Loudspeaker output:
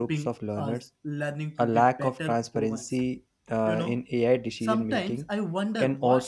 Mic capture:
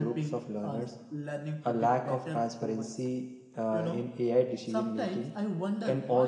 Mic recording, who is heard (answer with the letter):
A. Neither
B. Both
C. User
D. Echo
D